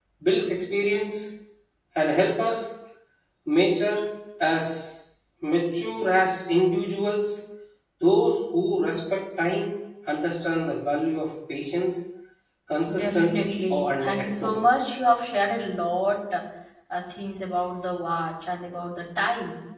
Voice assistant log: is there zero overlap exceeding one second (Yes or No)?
No